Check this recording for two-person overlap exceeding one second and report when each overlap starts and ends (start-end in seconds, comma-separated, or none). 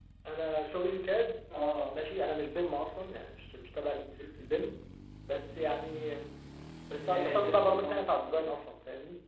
7.0-8.5